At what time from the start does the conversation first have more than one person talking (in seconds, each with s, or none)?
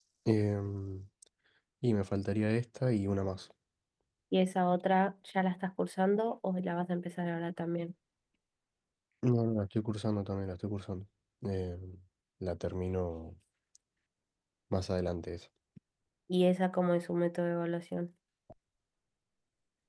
none